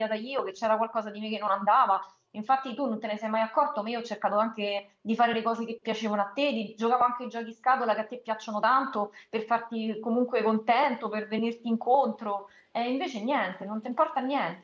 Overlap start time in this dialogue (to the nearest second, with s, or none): none